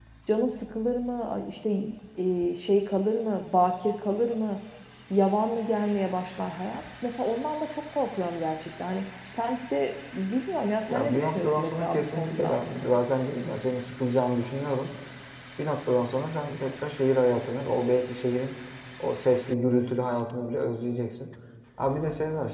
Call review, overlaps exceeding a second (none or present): present